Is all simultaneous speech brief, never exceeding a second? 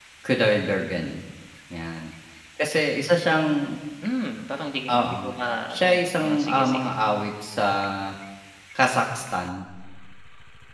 No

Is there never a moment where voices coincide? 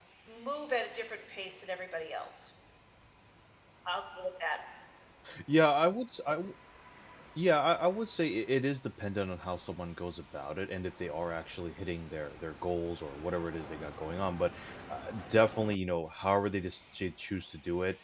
Yes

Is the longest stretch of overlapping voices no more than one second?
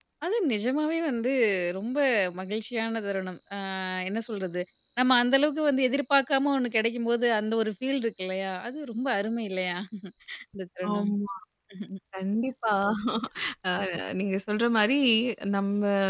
Yes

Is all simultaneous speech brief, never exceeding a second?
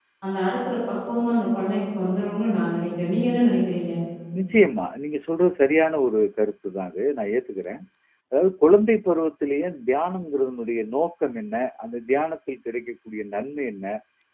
Yes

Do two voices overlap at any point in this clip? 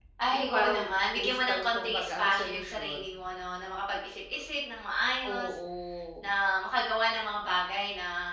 Yes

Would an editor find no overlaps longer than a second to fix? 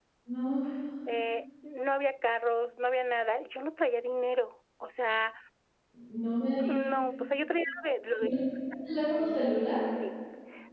Yes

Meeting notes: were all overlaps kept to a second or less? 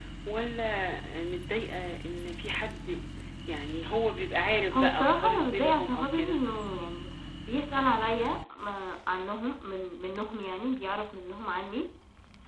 No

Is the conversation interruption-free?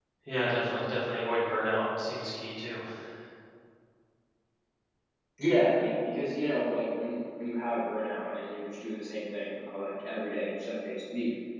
Yes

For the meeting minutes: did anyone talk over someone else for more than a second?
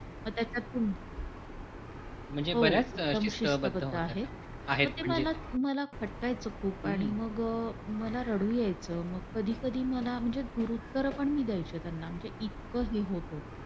Yes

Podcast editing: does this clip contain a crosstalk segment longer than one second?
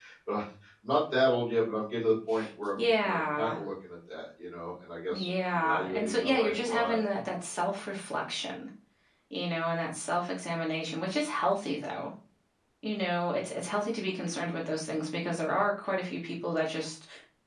Yes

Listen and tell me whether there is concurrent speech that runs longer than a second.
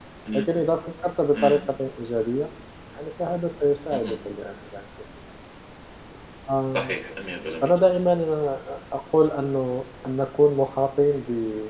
No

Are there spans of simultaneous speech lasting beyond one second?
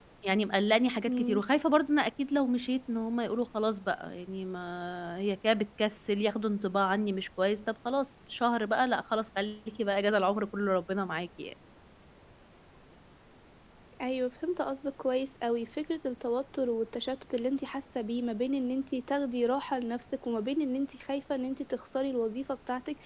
No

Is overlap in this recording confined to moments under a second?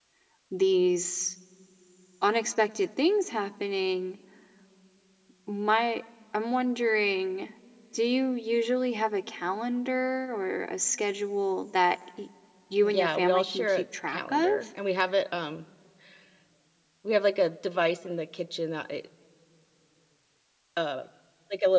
No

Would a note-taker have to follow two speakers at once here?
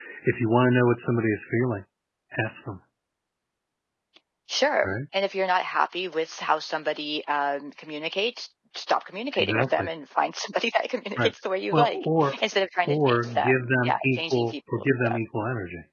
Yes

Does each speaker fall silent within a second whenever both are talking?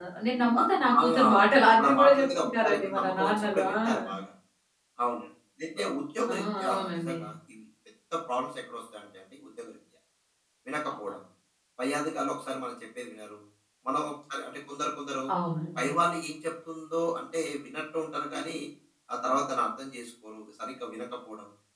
No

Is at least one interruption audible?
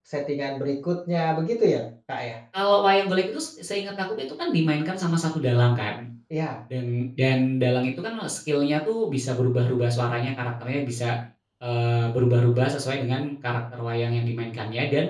No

